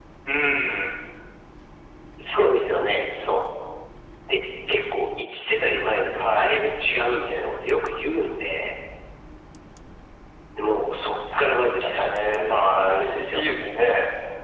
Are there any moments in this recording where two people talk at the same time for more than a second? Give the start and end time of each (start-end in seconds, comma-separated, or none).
11.4-13.4